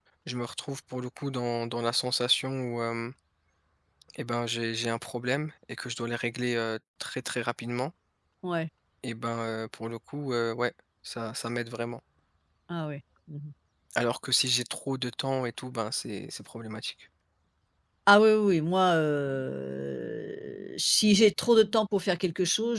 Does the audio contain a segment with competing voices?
No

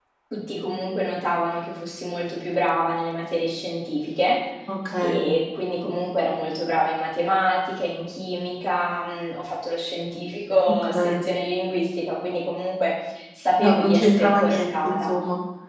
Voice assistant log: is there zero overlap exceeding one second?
No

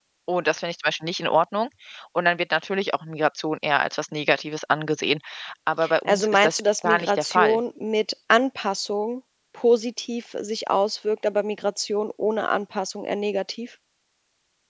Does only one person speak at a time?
No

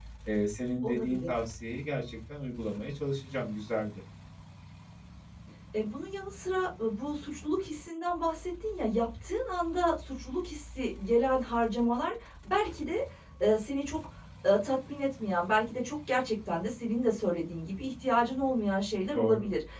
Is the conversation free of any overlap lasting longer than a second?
Yes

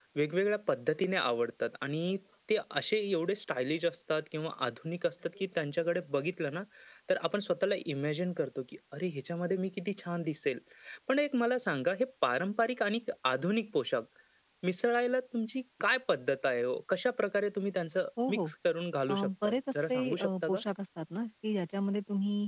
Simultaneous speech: Yes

